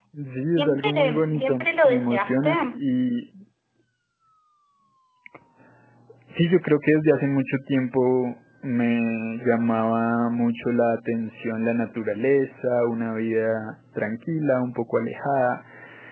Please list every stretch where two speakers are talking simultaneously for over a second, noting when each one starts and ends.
0.6-2.5

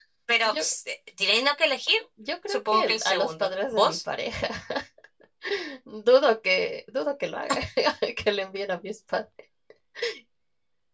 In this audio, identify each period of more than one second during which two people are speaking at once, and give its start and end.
2.5-4.0

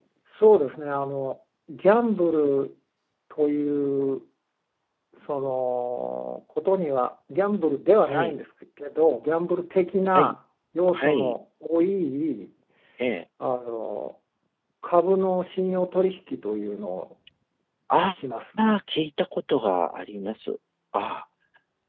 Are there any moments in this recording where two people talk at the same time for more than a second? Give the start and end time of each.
none

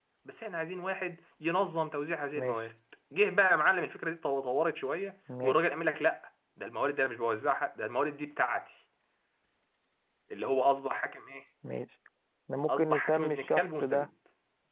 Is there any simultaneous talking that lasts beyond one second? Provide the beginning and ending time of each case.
12.7-14.1

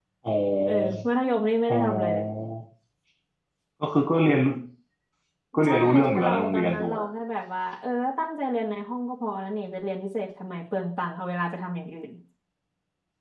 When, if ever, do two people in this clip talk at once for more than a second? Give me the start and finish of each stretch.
5.6-7.0

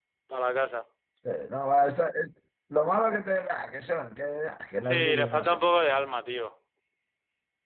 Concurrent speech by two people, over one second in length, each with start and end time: 4.8-6.1

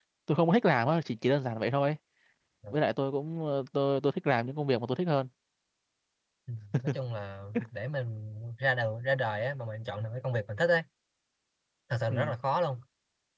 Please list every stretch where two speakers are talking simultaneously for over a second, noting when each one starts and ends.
none

